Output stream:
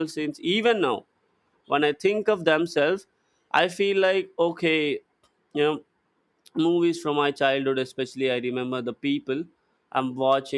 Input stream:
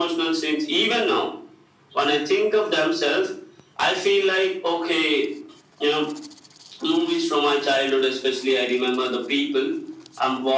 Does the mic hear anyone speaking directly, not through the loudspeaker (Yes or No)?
No